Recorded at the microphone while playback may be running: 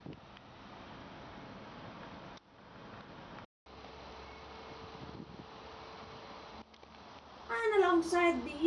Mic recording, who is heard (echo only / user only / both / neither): user only